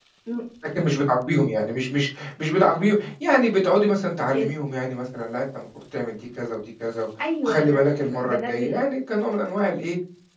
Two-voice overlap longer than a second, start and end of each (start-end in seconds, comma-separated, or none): 7.4-8.7